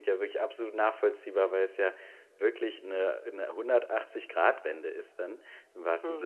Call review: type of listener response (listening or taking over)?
listening